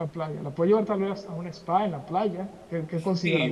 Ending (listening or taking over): taking over